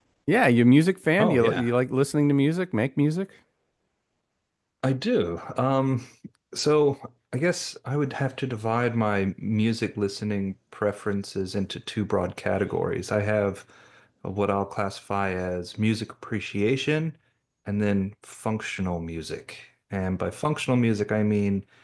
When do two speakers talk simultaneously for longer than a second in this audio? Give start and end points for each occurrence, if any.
none

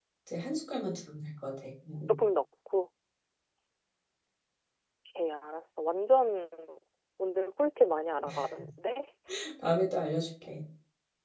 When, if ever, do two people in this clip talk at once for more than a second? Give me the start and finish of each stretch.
none

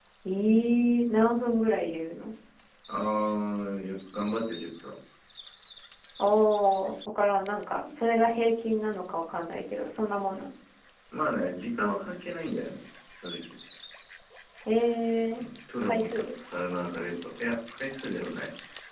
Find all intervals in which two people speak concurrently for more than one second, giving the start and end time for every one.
none

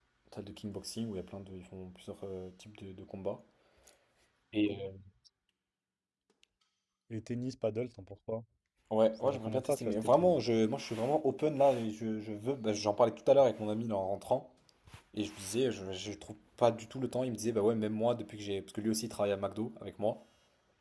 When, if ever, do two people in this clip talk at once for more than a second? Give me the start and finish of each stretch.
9.2-10.4

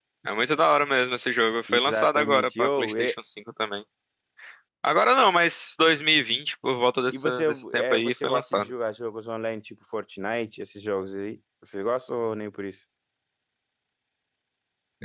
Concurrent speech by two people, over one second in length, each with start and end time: 1.7-3.1, 7.1-8.7

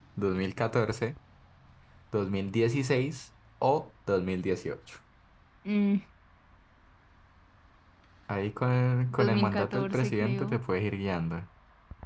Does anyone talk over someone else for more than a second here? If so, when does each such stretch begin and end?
9.1-10.6

